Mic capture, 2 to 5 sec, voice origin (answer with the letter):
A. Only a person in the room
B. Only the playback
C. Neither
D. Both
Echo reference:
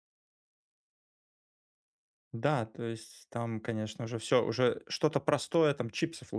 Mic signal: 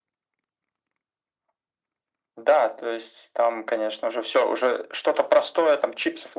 B